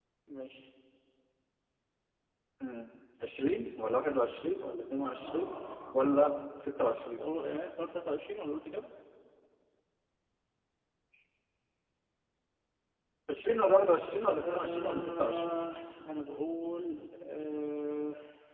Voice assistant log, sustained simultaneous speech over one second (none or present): present